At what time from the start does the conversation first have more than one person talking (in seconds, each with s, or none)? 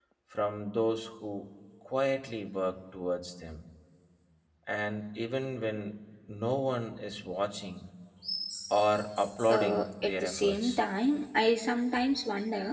9.5 s